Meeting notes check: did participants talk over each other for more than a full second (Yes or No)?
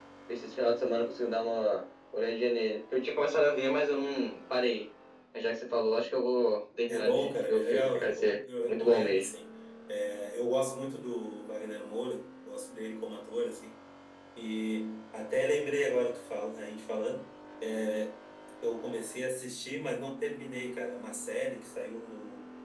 Yes